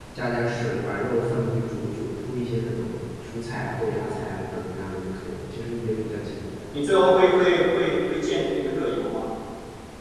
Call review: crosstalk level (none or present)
none